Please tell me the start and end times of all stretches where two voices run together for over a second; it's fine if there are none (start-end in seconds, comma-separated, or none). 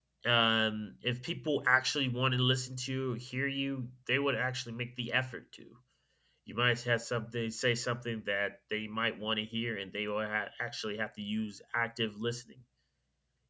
none